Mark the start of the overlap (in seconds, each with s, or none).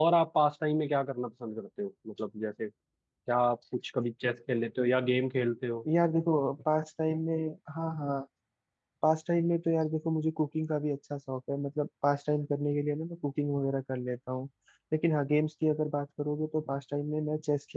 none